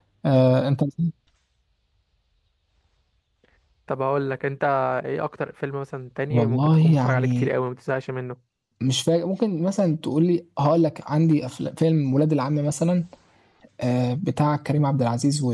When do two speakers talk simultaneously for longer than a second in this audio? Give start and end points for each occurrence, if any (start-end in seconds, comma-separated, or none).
6.3-7.5